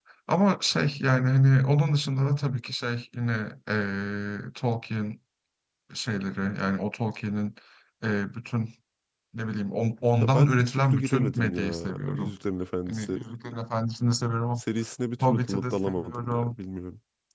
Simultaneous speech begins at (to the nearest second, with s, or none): 10 s